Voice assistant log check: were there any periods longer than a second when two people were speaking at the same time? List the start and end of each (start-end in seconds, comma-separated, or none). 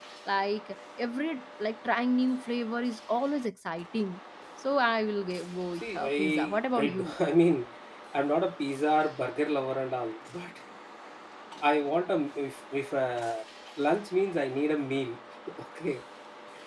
5.8-7.1